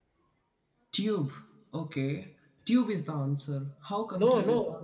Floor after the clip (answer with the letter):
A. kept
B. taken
B